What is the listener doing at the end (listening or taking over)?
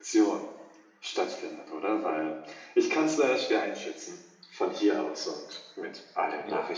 taking over